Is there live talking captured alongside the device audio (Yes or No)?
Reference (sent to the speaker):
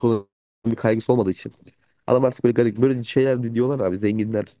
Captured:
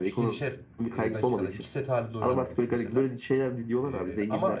Yes